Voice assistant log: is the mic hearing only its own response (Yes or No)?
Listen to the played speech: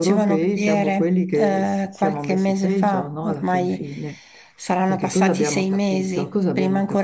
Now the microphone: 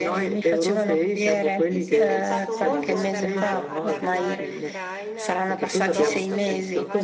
No